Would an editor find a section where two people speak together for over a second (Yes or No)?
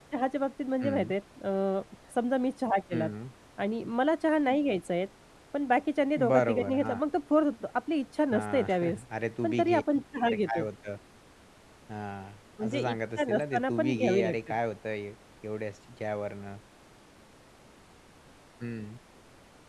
Yes